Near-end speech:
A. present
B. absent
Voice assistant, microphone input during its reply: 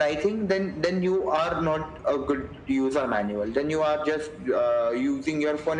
B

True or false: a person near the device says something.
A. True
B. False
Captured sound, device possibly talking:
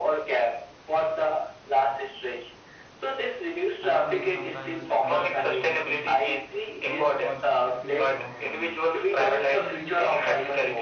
A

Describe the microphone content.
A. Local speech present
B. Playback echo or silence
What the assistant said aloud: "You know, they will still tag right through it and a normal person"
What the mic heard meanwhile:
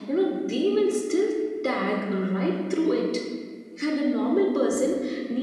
B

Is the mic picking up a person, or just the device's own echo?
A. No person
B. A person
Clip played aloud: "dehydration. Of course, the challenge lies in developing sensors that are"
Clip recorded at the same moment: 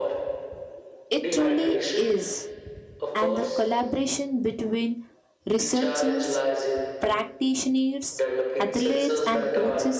B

